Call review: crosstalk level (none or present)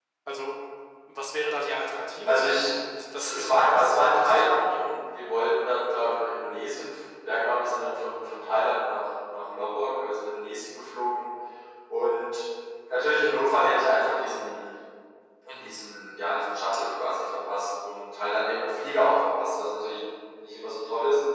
present